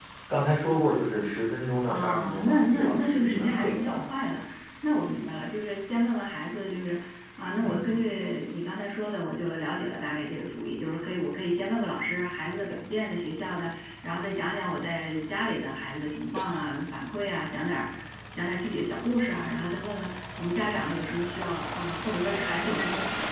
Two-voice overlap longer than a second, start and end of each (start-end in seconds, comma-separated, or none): 1.9-4.1